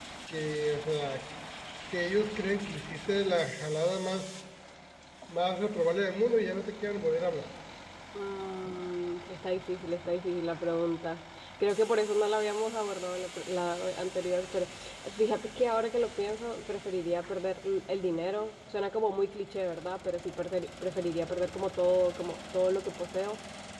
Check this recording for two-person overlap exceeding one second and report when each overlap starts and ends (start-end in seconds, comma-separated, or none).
none